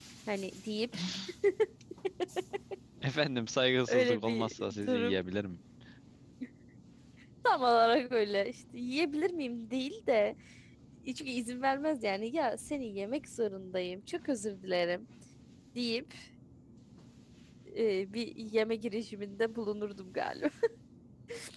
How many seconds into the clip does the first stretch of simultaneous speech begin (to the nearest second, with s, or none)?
4 s